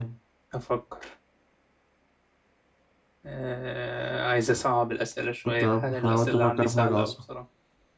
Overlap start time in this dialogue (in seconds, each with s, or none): 5.5 s